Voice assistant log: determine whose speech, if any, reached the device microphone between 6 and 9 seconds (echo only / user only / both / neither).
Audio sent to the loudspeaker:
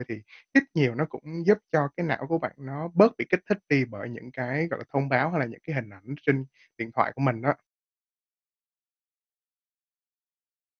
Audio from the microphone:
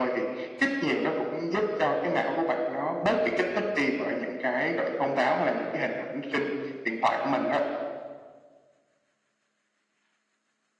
echo only